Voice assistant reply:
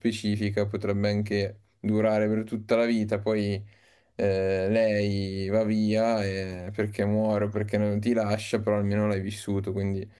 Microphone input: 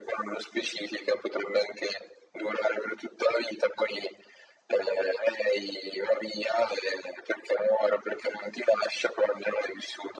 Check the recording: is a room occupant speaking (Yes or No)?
No